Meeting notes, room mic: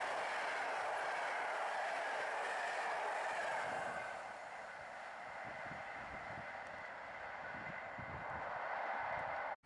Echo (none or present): none